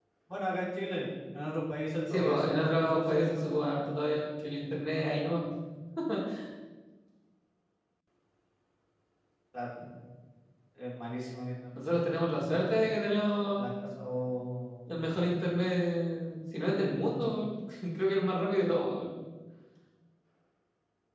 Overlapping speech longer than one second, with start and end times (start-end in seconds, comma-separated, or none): 2.1-3.6